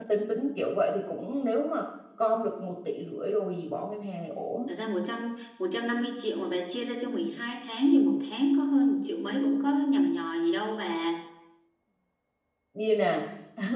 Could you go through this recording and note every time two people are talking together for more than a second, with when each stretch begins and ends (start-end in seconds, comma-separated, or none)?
none